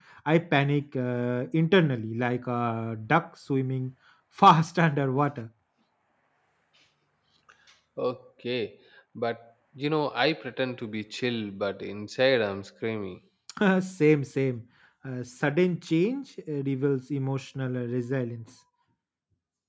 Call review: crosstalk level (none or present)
none